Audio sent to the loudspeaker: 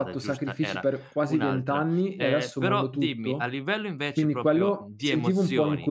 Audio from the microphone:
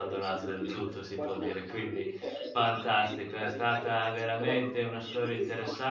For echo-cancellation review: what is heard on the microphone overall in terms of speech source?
both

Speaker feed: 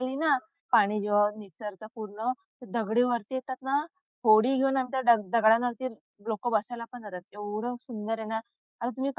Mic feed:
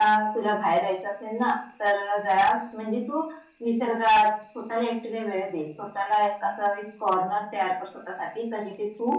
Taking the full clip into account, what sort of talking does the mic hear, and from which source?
user only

